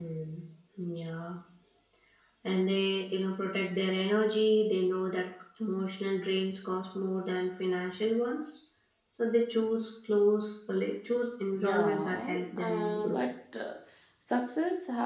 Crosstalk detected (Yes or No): Yes